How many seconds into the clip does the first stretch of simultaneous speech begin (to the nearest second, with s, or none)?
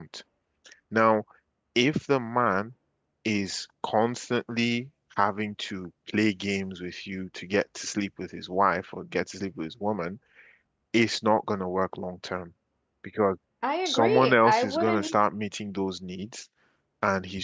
14 s